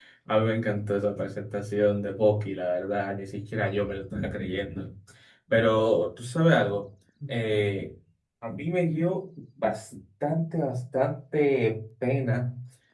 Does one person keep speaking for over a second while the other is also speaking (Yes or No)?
No